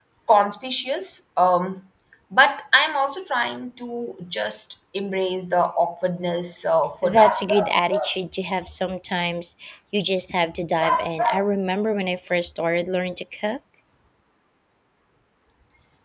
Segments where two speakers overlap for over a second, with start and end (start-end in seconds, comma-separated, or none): none